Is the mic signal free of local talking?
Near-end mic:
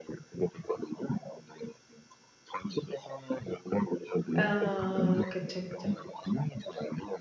No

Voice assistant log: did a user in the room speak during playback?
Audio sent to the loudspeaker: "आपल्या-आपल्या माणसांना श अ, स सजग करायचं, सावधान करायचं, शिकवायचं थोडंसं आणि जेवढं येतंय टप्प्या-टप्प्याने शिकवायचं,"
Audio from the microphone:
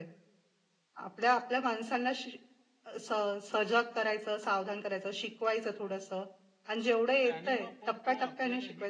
Yes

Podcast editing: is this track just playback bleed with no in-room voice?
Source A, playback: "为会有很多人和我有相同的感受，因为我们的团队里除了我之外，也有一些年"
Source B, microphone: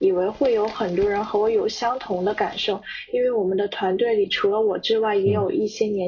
No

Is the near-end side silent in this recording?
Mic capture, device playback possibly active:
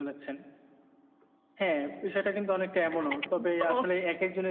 No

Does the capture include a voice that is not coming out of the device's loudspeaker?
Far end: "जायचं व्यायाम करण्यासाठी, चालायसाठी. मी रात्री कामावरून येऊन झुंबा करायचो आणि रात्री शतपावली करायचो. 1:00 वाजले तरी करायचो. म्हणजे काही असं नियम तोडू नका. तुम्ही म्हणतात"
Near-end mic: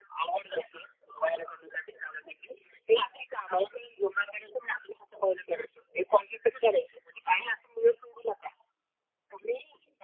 No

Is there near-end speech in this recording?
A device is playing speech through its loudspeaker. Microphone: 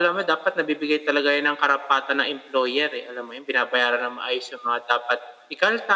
No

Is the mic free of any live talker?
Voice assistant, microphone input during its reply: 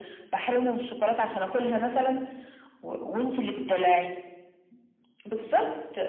Yes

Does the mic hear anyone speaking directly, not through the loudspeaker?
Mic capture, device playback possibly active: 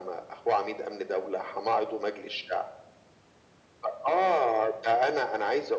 No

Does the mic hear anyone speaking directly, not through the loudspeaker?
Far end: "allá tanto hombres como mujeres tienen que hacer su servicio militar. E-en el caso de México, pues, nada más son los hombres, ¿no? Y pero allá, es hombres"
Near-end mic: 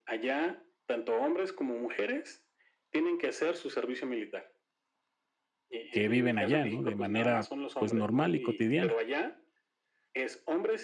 Yes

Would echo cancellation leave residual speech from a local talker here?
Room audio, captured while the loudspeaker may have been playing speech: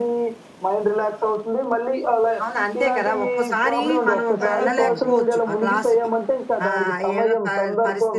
Yes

